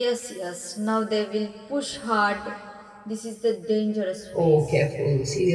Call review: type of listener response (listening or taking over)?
taking over